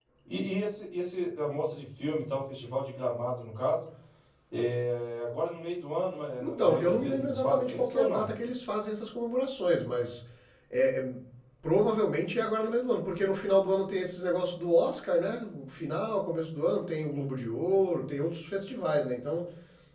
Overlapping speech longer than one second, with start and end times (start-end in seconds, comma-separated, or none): 6.4-8.3